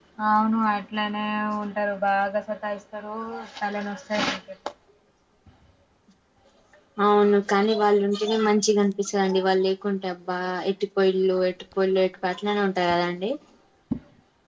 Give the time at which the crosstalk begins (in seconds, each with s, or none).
none